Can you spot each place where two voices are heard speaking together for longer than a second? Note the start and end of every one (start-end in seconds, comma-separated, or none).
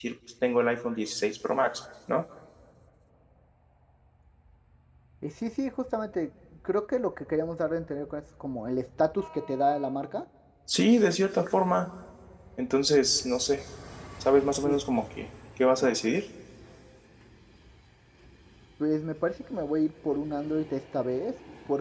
none